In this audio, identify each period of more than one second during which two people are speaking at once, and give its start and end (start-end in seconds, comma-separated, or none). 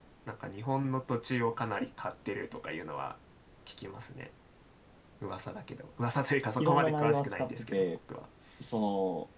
6.6-7.8